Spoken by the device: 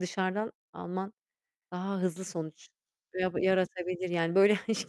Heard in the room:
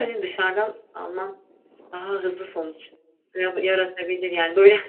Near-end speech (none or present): none